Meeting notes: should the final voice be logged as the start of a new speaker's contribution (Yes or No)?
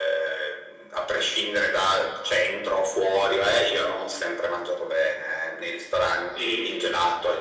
No